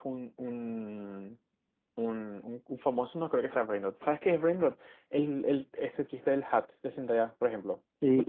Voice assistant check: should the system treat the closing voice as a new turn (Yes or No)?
Yes